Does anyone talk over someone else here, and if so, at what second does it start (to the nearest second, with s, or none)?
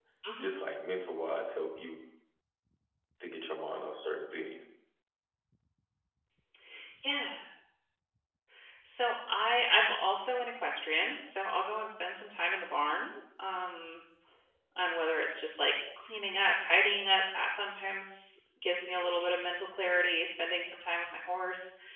none